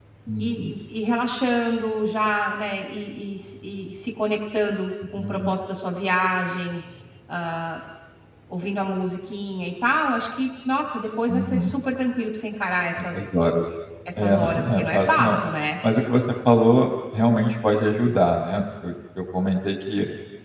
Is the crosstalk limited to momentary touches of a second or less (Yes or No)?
No